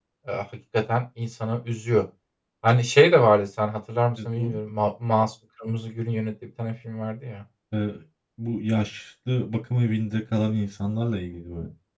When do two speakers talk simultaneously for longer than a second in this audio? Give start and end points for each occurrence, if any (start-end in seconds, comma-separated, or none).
none